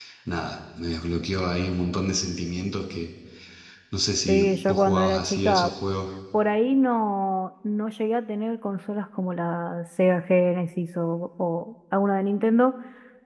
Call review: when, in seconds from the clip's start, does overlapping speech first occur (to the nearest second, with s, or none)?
4 s